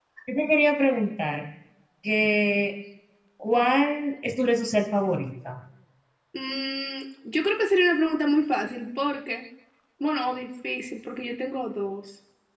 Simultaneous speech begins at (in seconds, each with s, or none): none